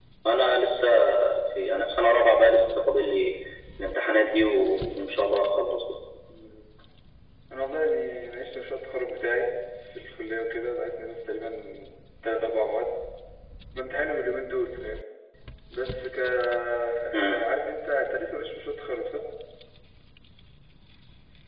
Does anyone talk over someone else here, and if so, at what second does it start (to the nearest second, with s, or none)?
none